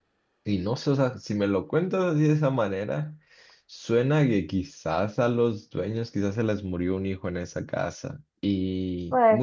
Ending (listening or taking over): listening